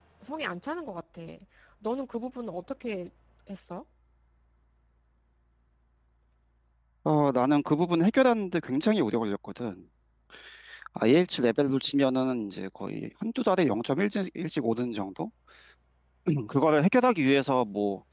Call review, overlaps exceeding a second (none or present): none